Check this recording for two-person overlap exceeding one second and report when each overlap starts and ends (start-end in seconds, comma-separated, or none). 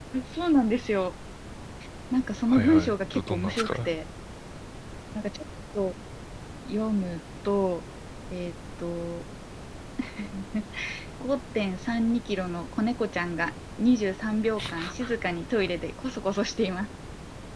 2.5-3.9